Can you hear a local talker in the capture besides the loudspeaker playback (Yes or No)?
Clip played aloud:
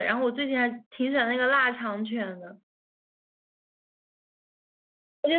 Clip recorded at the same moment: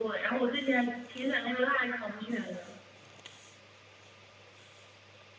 No